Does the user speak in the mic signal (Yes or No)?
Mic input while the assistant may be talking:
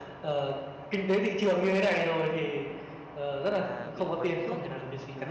Yes